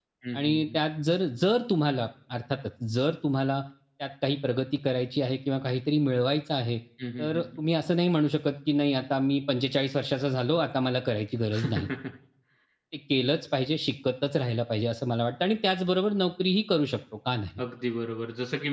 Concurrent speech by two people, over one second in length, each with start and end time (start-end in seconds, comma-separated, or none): none